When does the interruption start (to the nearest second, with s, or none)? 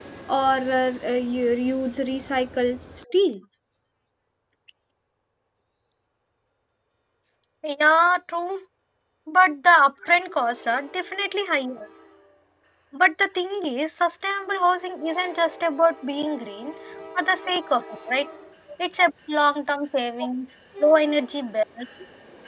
none